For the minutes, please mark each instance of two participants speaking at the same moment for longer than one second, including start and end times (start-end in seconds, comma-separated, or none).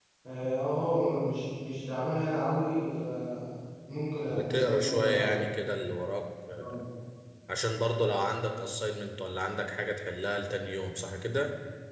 4.3-5.5